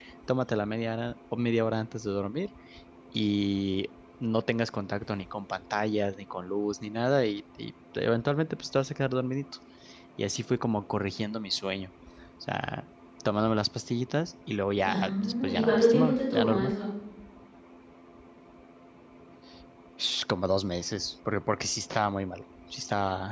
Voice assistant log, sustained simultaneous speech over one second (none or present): present